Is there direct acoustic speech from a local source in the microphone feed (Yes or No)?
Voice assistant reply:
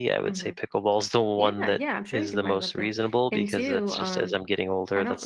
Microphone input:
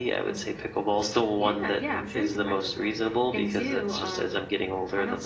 No